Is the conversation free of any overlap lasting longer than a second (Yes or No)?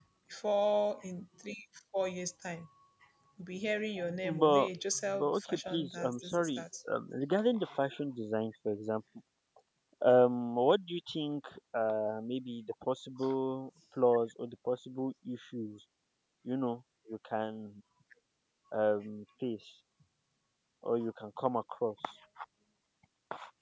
No